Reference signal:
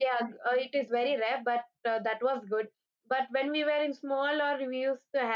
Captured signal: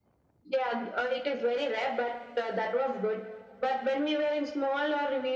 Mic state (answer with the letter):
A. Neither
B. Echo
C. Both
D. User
B